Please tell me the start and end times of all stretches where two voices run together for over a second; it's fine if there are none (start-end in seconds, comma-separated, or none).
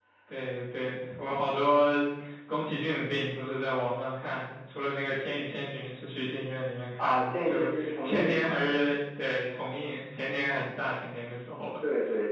7.0-8.6